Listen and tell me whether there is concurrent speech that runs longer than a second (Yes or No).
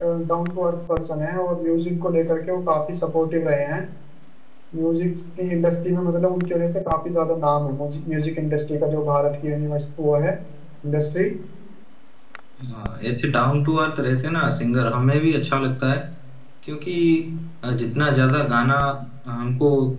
No